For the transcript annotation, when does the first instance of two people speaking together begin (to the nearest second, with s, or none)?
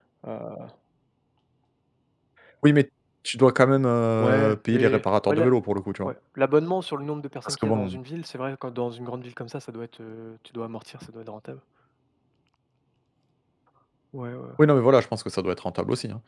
4 s